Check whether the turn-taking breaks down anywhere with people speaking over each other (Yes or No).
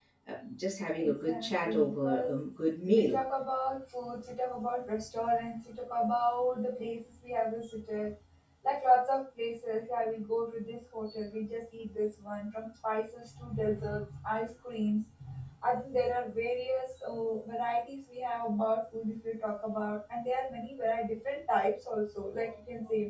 Yes